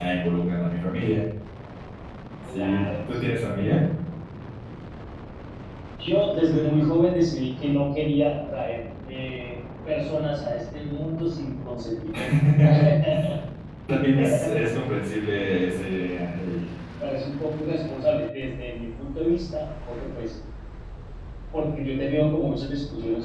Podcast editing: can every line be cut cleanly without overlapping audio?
No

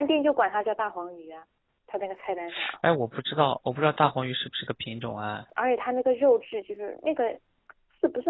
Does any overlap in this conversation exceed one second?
No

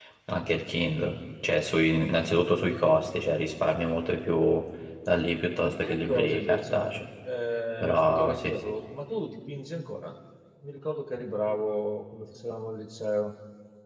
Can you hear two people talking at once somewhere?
Yes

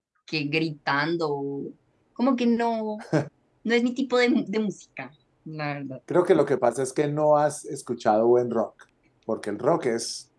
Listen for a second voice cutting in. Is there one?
No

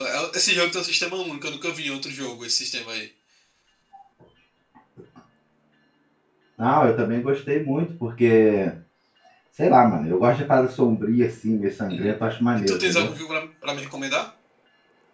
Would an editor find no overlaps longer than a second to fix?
Yes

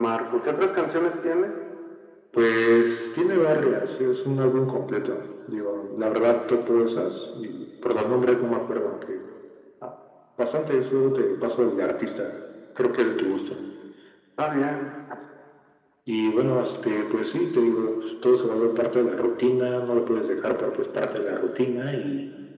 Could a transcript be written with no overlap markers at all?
Yes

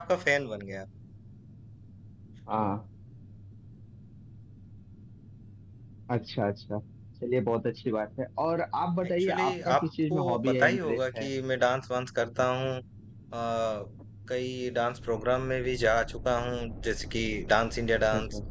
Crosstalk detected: Yes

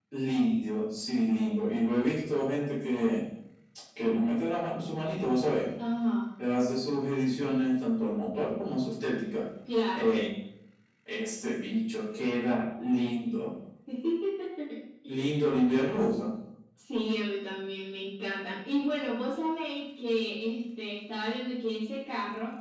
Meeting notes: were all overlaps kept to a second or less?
Yes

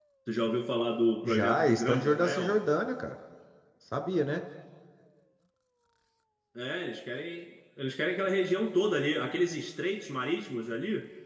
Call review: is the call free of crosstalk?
No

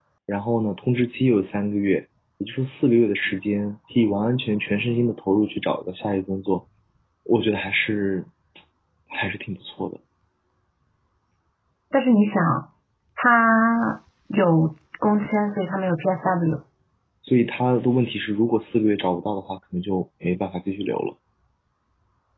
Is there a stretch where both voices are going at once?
No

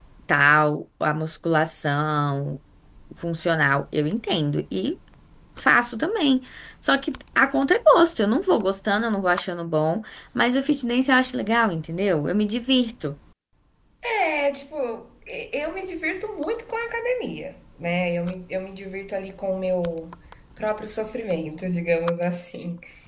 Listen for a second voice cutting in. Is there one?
No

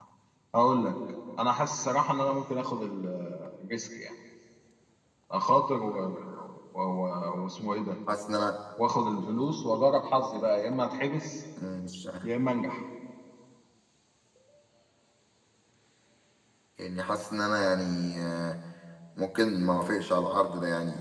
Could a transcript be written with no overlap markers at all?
Yes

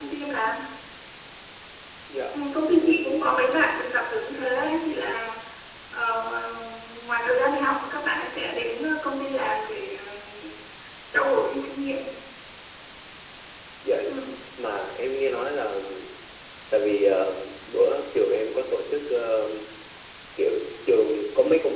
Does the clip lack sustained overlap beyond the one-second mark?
No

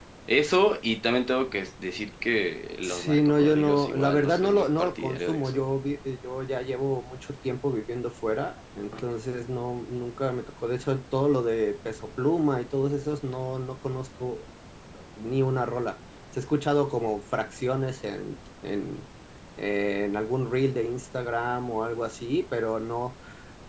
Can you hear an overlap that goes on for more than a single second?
Yes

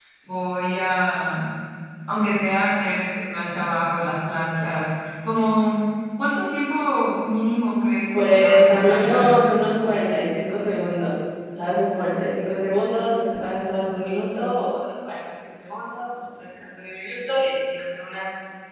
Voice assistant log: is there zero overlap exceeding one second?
No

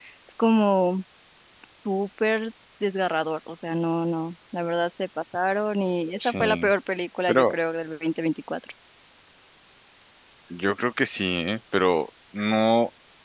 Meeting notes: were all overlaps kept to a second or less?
Yes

